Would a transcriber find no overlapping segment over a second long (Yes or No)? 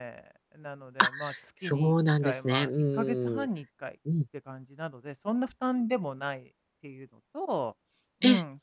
No